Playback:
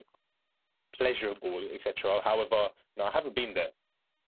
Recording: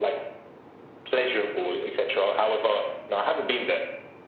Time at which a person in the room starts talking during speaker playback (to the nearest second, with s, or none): none